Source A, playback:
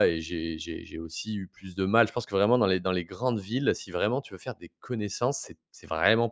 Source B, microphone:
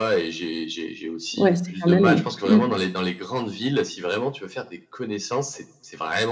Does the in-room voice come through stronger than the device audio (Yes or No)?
Yes